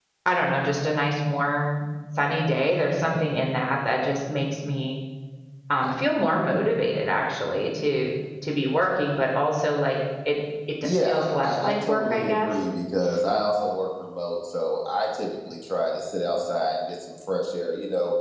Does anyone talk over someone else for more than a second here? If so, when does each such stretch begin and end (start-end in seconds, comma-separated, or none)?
10.8-12.5